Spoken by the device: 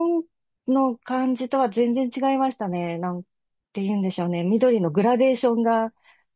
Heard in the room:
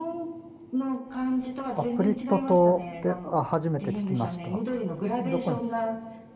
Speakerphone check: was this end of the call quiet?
No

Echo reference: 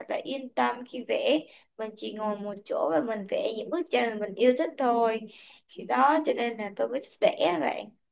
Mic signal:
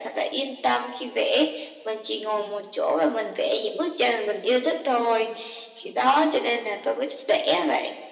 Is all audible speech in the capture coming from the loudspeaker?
Yes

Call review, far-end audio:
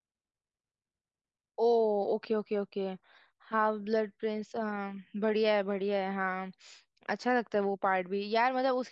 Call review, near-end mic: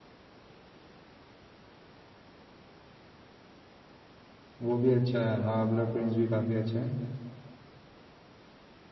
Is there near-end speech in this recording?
Yes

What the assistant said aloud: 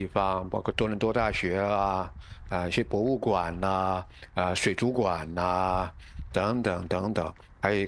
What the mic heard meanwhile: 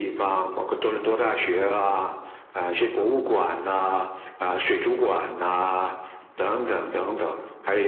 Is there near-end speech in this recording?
No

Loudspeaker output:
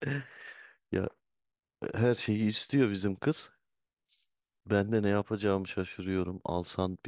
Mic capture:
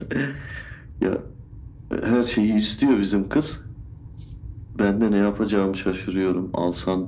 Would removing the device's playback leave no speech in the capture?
Yes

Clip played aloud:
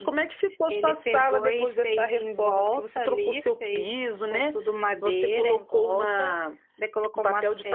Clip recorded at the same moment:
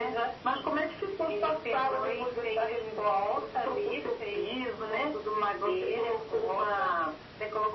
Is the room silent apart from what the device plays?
Yes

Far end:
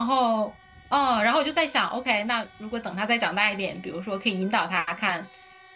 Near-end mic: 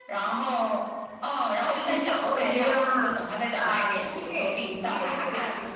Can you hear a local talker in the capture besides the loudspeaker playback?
Yes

